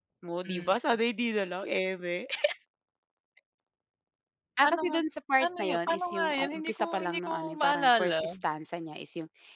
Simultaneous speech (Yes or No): Yes